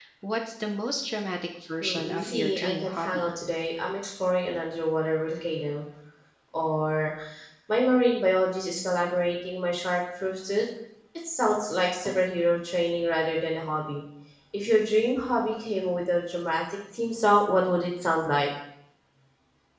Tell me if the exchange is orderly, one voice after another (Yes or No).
No